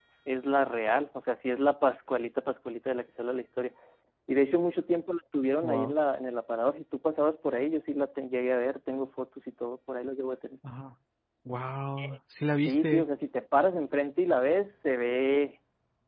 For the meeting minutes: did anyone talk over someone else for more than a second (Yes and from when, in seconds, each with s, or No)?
No